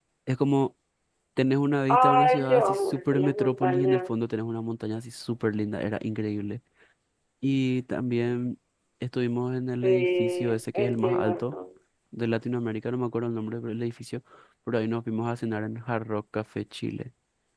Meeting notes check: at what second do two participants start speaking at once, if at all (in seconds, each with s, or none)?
1.9 s